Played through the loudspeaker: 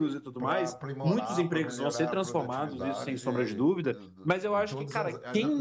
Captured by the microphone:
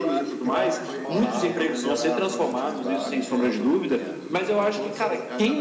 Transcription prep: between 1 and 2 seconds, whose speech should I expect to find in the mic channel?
both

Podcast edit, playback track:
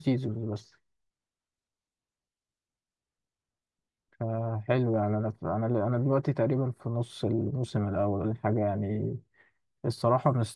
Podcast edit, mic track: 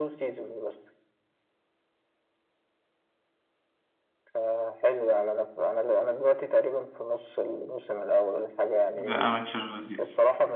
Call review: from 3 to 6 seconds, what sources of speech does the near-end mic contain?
echo only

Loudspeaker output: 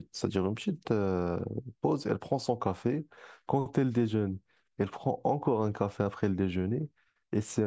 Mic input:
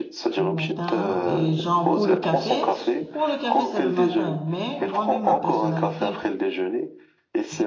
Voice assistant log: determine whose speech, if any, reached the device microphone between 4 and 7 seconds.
both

